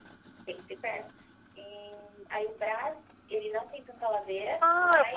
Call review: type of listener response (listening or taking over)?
taking over